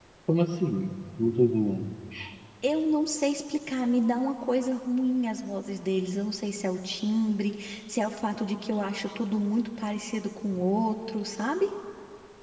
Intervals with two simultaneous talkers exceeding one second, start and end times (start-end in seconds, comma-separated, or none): none